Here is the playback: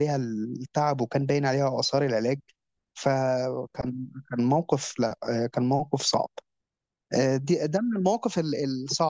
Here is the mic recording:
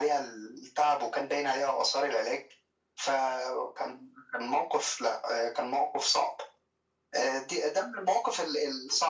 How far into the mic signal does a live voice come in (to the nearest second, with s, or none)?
none